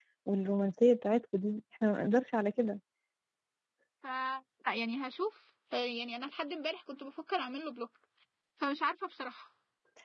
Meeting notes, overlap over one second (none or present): none